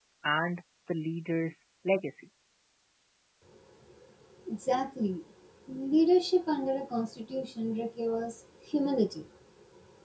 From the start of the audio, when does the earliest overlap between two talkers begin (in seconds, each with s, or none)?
none